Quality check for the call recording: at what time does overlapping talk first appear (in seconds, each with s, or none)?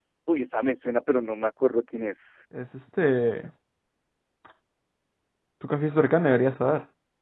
none